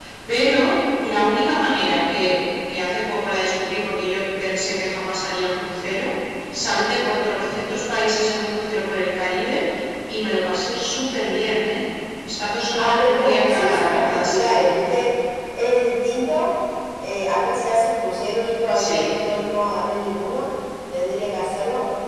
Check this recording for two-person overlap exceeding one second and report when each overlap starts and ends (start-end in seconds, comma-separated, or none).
12.8-14.7